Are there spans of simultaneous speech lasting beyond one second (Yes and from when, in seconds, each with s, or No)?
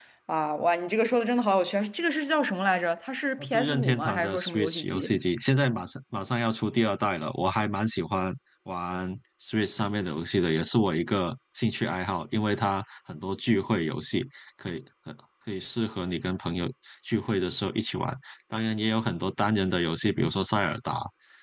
Yes, from 3.4 s